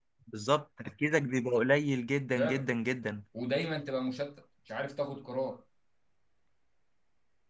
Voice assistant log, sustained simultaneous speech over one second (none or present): none